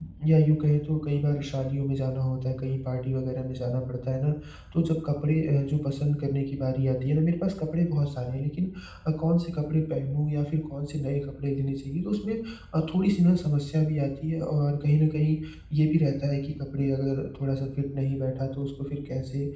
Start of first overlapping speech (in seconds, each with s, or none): none